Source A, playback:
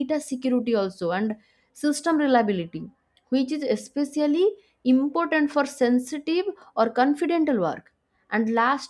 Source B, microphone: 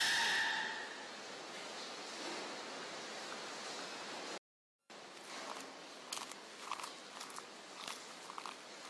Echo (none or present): none